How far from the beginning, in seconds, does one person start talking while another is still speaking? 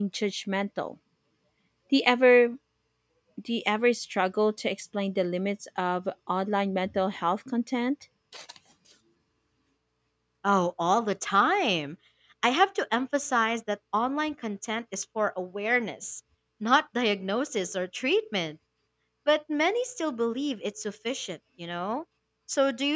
none

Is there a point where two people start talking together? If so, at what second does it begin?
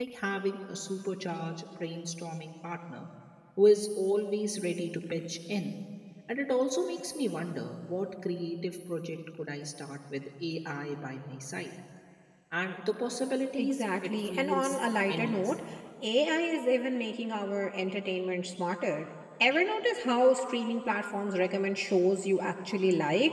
13.5 s

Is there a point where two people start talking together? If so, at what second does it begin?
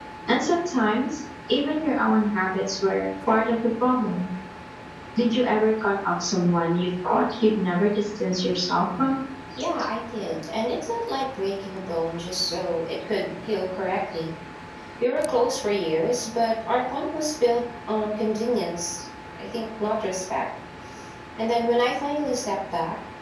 none

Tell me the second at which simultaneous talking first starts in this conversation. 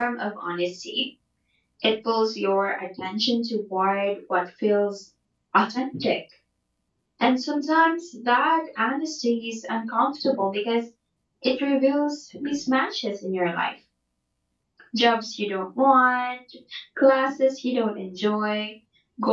none

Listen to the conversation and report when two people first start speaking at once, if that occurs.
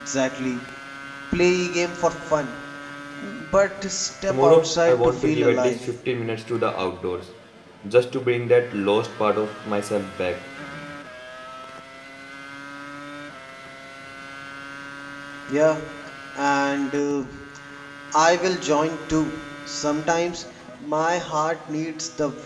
4.3 s

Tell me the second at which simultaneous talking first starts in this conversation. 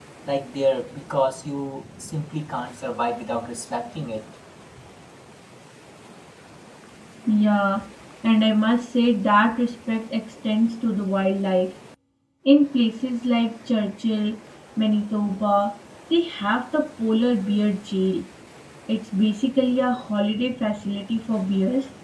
none

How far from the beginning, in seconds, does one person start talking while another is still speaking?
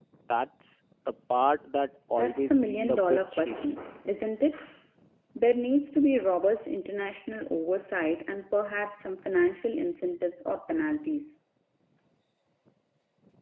2.2 s

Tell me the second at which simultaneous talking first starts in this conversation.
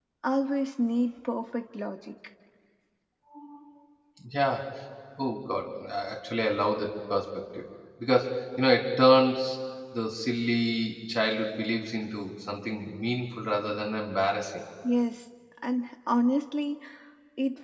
none

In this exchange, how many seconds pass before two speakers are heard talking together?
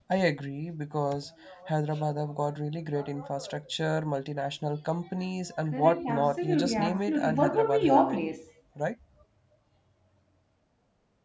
5.7 s

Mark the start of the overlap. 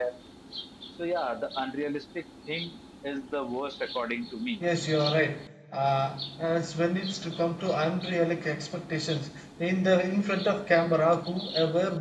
none

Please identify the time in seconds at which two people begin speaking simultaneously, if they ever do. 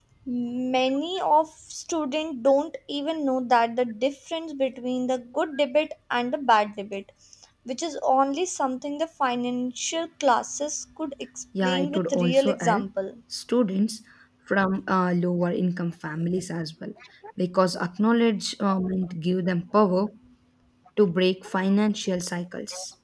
11.6 s

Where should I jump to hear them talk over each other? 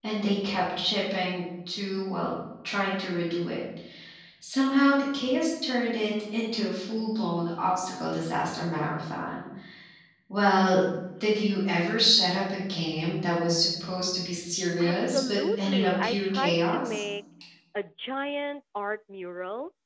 14.8 s

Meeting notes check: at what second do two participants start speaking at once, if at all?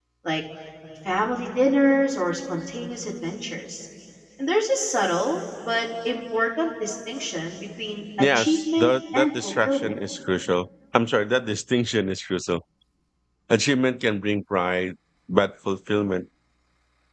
8.2 s

